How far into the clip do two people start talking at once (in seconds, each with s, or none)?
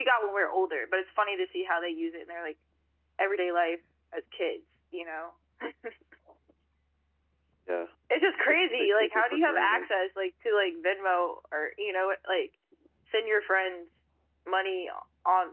8.3 s